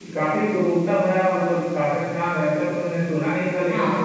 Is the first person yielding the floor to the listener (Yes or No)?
No